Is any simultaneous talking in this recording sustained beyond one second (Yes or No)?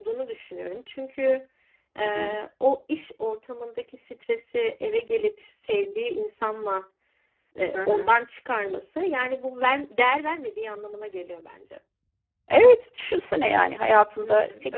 No